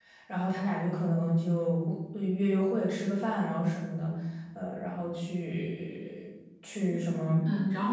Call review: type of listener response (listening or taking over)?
taking over